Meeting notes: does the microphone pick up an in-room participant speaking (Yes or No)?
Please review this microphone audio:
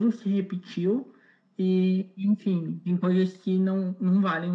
No